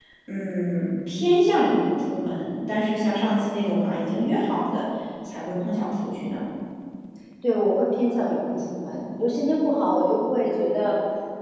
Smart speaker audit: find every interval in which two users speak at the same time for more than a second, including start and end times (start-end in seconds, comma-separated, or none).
none